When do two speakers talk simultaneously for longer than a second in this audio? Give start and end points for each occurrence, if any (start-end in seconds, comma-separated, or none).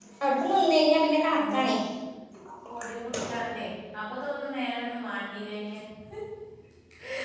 none